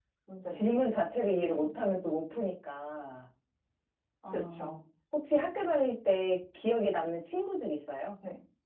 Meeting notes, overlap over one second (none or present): none